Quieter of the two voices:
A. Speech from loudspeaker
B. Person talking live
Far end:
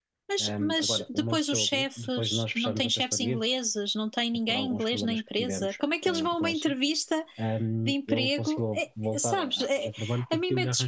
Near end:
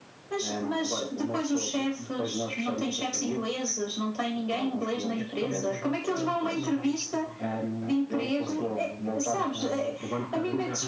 B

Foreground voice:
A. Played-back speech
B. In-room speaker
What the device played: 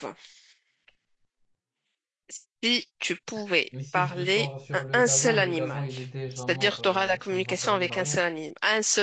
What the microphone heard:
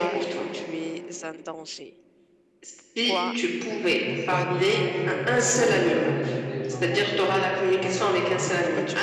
A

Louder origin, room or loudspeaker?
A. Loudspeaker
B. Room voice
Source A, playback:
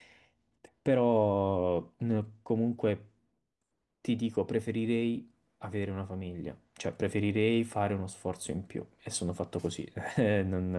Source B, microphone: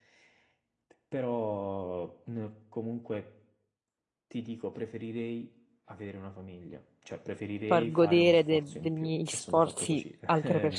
B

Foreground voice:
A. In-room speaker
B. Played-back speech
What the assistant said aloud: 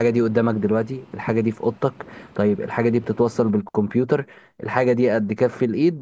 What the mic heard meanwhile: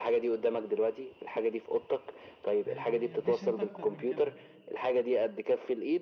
B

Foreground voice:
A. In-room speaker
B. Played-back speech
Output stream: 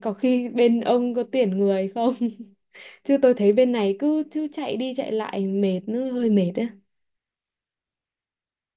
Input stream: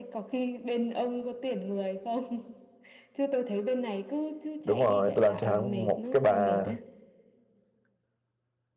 A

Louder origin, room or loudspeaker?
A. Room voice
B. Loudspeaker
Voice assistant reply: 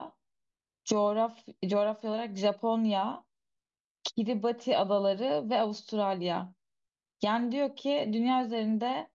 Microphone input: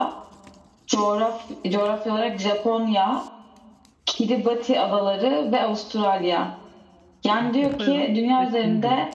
B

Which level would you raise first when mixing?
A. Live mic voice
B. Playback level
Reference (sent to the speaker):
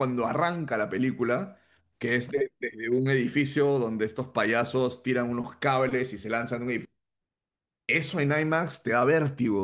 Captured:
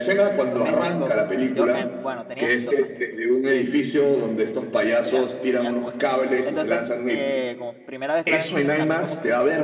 A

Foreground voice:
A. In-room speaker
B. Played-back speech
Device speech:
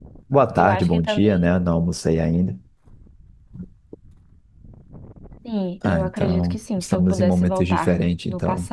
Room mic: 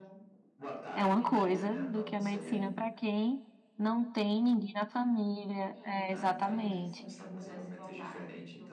A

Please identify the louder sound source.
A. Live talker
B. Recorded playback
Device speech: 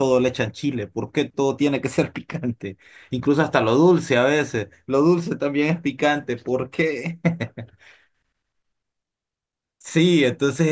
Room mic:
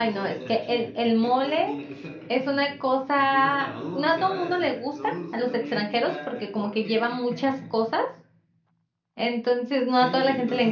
A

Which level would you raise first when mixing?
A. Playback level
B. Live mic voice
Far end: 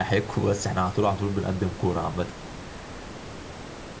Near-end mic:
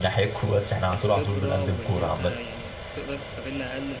B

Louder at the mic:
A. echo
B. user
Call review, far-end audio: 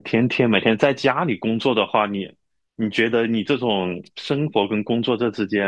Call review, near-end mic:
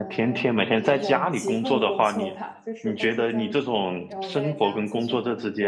A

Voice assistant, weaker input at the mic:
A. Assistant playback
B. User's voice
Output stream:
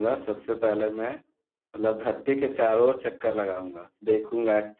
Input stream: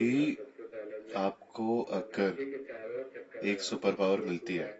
A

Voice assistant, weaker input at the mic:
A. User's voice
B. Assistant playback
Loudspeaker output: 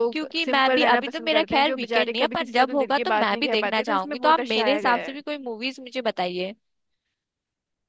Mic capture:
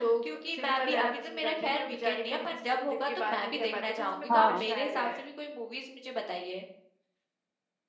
B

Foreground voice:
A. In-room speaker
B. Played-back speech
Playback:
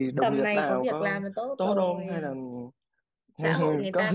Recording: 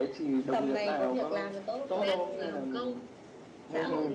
B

